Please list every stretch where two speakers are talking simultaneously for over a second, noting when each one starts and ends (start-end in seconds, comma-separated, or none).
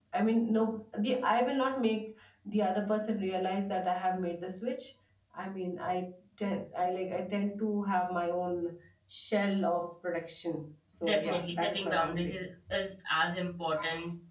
11.0-12.4